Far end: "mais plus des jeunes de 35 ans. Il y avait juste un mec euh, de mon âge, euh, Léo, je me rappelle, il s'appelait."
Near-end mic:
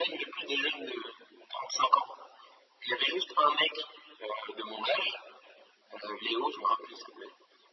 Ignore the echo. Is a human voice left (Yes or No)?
No